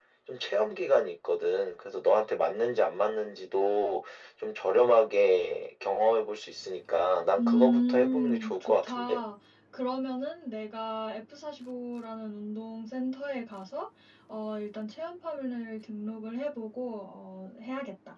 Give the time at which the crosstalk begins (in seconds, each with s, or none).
7.4 s